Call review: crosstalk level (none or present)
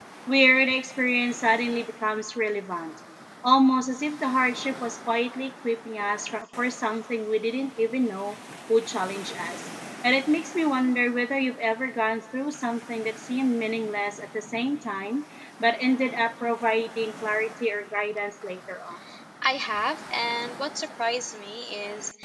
none